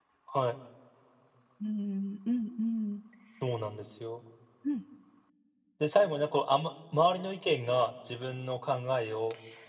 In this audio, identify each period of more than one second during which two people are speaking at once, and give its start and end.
none

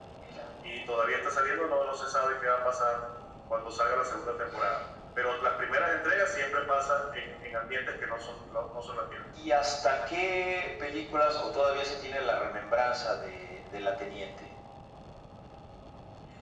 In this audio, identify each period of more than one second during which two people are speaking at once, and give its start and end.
none

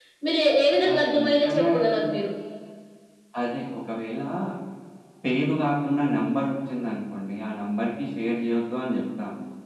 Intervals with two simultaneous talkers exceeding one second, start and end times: 0.9-2.1

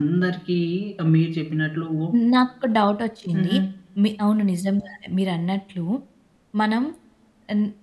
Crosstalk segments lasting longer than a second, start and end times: none

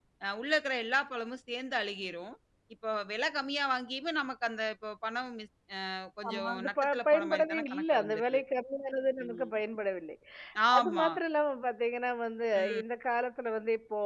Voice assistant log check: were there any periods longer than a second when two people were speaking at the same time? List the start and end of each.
6.3-8.4

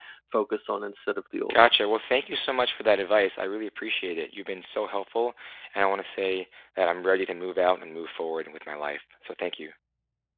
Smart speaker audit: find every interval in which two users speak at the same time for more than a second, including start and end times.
none

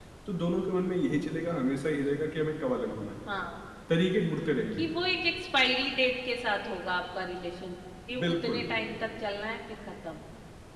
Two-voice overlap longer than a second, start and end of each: none

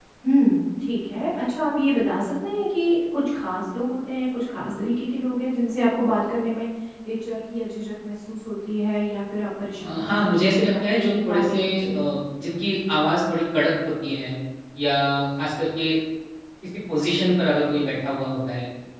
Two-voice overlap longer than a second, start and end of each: 9.8-11.9

